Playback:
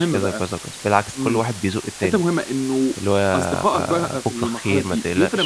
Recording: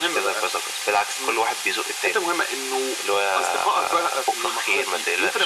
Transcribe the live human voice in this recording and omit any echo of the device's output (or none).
none